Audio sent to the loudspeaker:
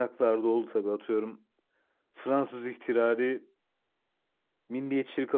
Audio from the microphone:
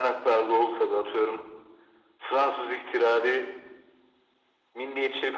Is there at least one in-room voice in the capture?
No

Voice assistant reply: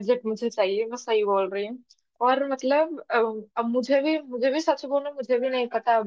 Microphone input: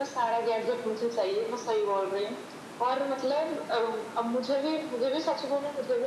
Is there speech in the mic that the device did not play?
No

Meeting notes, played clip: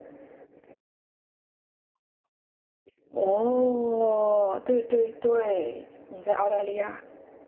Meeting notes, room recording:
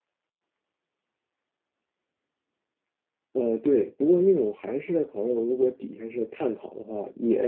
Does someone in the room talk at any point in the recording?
Yes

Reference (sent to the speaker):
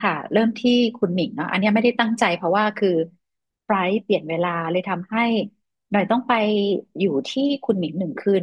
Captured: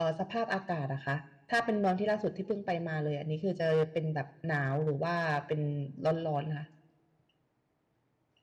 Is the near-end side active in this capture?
Yes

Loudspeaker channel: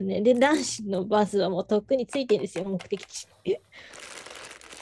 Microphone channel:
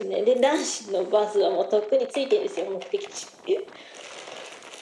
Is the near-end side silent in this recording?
Yes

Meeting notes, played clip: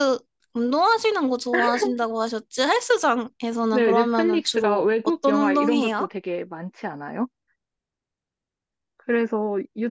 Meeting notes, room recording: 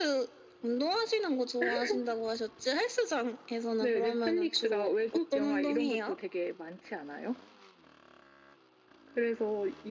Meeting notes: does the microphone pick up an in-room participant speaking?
No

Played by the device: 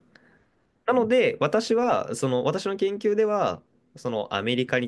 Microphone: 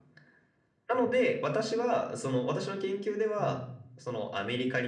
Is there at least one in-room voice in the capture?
Yes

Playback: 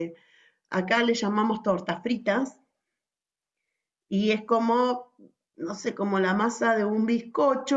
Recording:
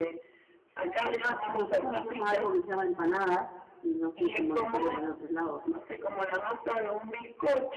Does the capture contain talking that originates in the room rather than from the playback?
Yes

